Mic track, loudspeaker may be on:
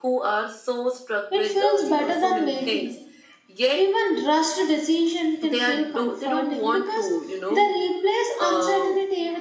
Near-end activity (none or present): present